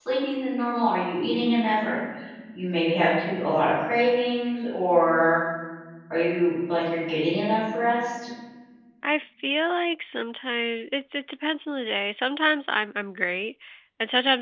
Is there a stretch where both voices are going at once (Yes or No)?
No